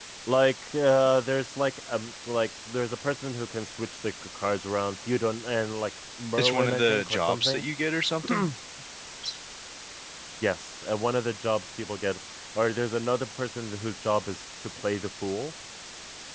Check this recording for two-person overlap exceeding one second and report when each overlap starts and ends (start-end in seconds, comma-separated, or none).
6.4-7.6